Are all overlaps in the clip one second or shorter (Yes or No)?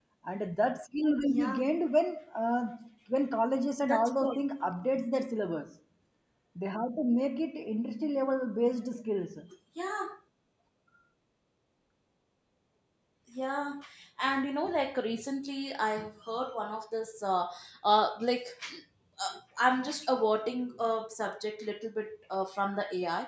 Yes